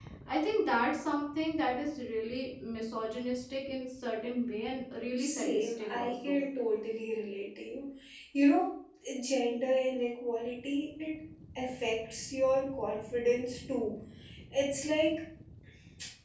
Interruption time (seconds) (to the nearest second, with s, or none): 5 s